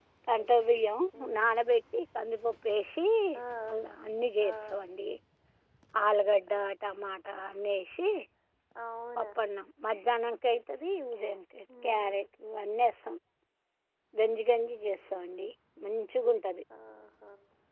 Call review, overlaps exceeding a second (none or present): none